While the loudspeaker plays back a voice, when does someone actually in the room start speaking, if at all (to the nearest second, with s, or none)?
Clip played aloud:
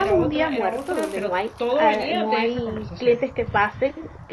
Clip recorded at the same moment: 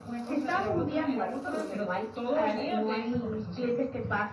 none